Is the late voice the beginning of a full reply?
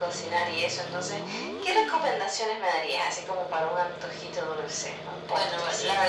Yes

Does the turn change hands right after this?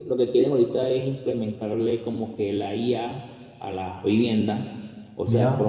No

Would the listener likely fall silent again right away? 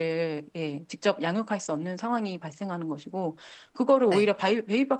Yes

